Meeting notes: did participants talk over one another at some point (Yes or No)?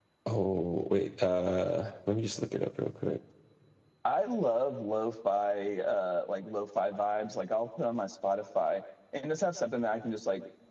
No